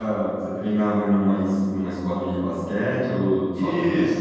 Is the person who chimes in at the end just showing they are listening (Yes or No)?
No